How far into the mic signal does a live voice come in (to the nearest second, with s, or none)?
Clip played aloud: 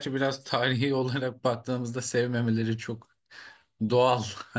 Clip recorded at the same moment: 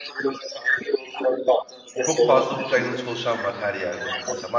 2 s